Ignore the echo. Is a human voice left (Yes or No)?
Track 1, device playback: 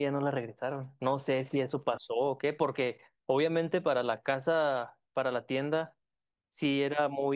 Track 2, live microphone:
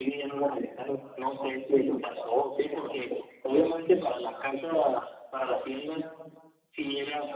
No